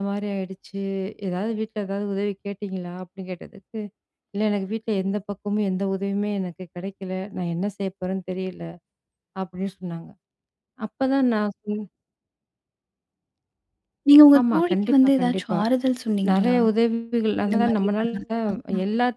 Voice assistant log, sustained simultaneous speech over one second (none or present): present